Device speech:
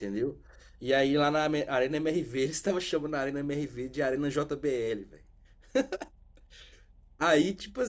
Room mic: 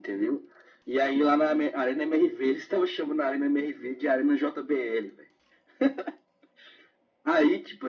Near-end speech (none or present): none